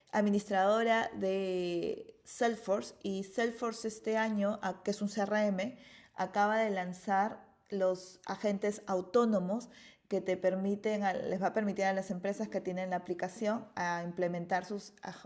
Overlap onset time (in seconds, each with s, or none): none